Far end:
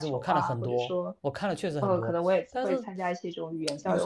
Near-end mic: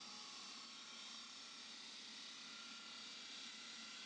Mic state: neither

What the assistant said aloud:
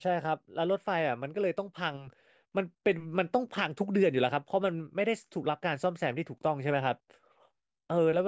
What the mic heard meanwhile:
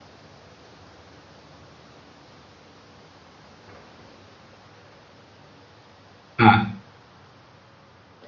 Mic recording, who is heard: user only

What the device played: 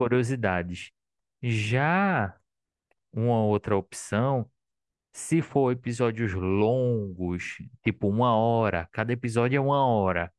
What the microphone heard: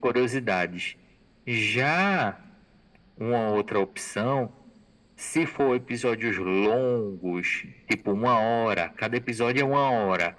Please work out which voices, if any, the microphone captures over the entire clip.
echo only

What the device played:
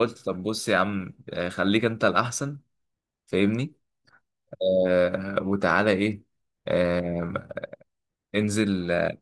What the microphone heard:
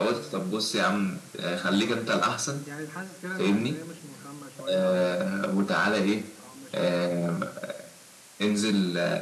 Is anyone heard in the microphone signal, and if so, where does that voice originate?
both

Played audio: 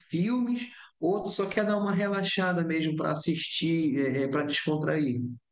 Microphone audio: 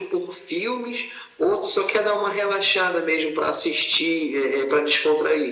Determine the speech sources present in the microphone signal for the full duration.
echo only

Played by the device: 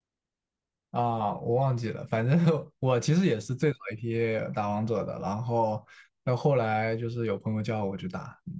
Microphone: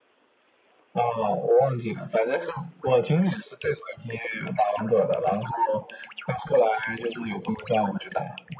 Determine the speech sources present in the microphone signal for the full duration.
echo only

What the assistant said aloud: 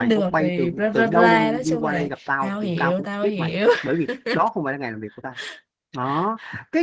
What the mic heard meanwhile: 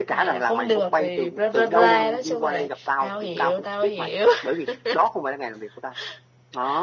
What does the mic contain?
echo only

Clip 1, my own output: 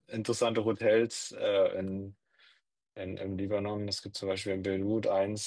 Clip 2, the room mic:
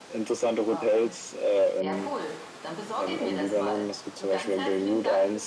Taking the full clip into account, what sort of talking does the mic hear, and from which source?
both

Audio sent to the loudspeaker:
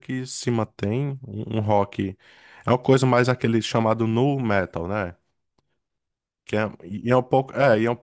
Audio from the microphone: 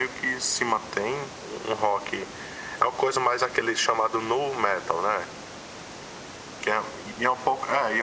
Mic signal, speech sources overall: echo only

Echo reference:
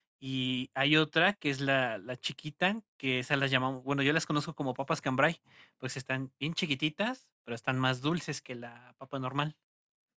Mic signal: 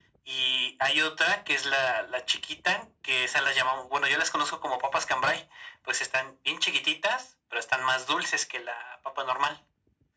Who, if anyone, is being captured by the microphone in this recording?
echo only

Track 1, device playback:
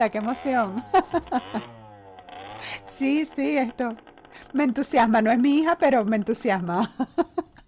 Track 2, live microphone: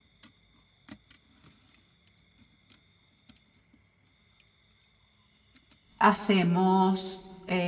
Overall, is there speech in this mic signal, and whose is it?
user only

